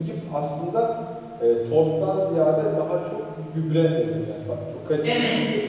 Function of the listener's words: taking over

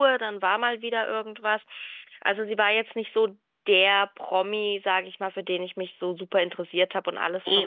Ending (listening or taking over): listening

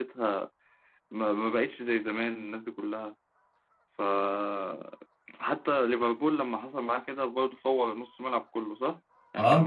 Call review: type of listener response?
listening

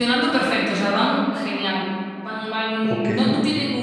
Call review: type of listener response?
listening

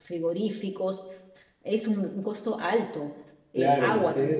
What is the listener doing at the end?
taking over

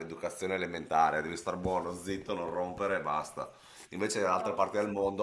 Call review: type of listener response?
listening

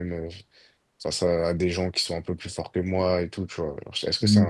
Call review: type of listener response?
listening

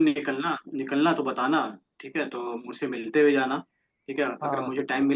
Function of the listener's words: listening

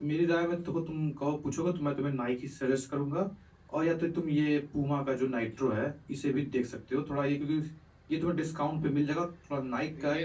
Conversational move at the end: taking over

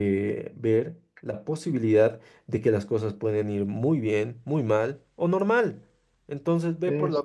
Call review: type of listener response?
listening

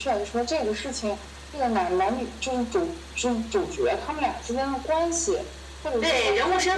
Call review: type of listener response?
taking over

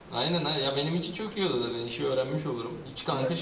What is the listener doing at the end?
listening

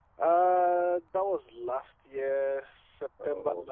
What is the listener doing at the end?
listening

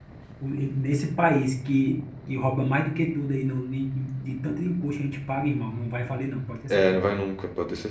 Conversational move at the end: taking over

